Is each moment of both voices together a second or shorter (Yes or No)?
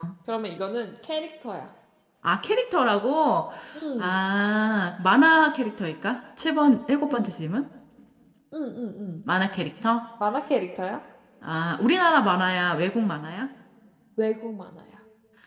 Yes